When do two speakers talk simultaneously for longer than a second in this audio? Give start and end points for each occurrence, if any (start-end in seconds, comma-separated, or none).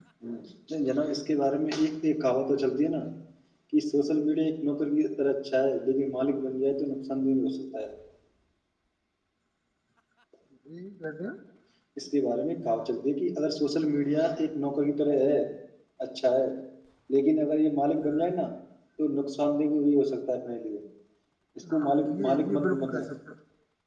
21.7-23.1